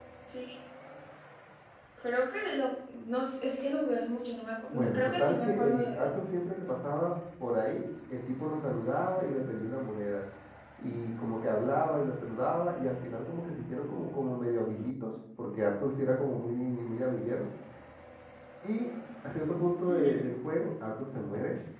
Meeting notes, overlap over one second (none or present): present